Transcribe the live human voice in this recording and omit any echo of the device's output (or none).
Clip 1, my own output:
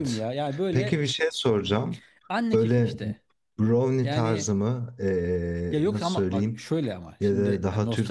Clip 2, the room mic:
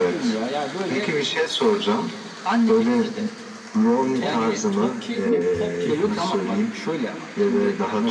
top top kek mi pop kek mi?